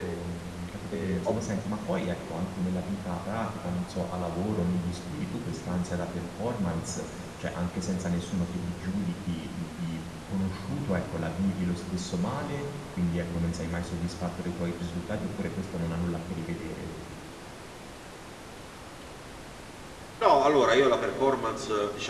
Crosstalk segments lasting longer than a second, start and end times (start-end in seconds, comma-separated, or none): none